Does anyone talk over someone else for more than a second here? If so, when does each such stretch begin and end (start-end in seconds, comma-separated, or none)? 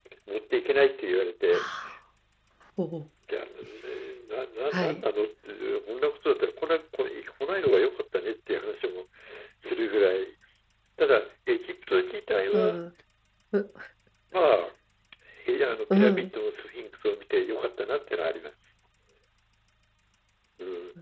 none